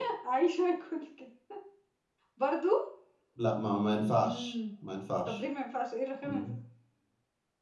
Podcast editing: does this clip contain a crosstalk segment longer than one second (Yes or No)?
No